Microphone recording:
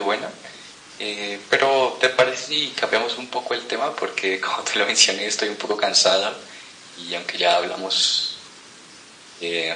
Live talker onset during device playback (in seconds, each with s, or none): none